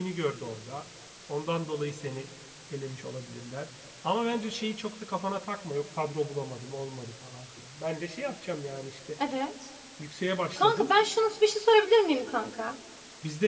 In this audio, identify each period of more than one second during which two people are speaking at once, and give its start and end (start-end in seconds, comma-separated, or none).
none